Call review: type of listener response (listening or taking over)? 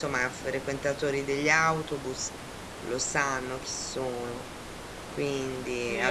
taking over